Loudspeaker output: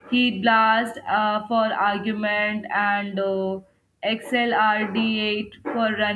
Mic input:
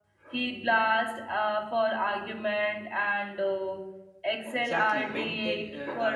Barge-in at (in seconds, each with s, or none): 4.5 s